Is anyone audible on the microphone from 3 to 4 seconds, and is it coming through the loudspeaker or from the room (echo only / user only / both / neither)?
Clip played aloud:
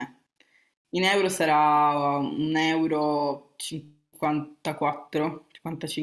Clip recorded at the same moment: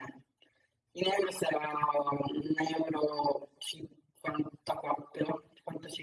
echo only